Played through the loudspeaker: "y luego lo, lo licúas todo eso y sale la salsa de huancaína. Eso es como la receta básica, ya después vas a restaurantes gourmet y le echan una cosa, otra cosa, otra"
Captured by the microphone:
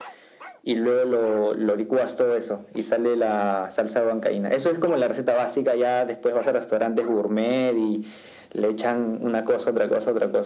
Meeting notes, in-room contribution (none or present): none